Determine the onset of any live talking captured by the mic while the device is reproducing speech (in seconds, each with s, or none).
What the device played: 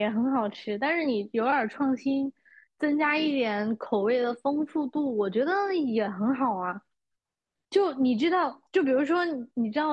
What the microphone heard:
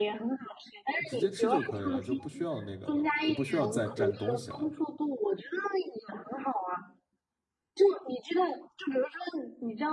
1.1 s